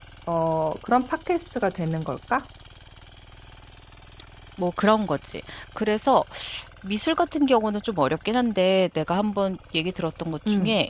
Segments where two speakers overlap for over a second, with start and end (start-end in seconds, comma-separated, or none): none